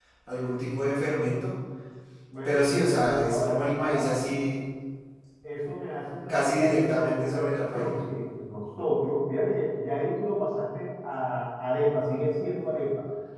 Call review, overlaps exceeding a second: present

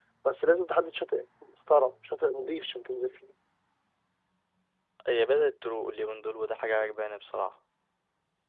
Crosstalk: none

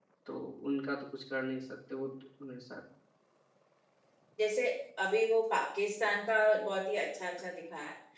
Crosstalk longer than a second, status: none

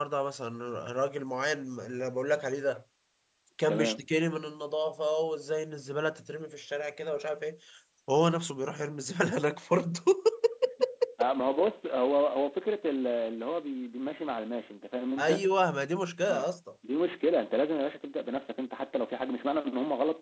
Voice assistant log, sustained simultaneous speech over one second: none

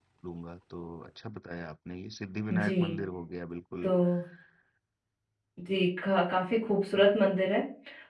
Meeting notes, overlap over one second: none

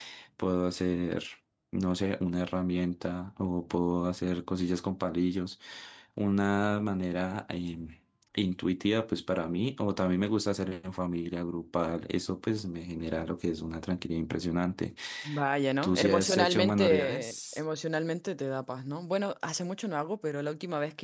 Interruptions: present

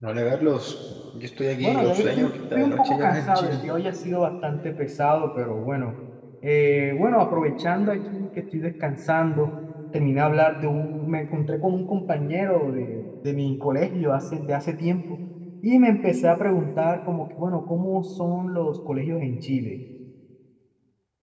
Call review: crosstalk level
present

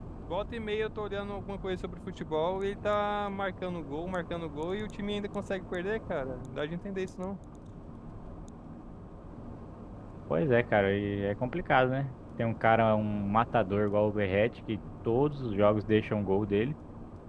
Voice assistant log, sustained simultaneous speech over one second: none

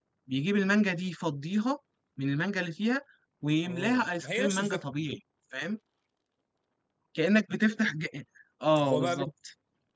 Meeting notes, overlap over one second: present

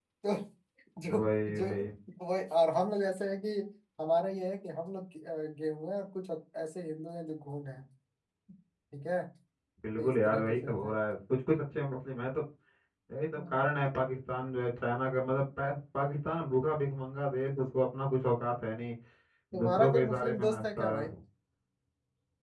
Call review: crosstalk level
present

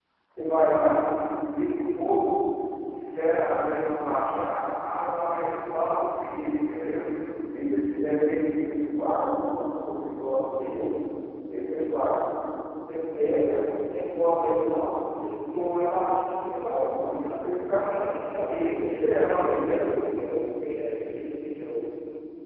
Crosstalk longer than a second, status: present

